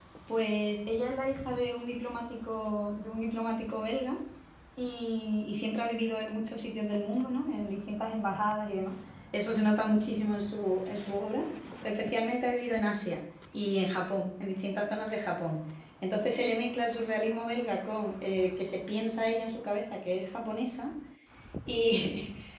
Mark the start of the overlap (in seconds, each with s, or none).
none